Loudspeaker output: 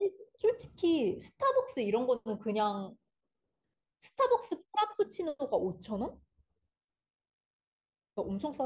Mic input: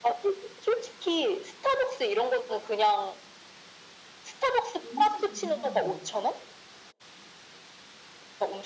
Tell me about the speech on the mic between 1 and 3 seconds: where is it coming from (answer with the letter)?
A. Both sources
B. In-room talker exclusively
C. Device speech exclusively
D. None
C